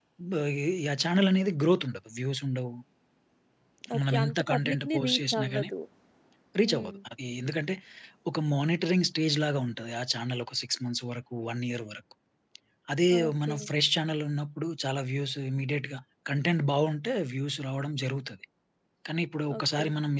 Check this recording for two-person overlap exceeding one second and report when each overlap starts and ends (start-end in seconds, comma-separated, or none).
4.0-5.7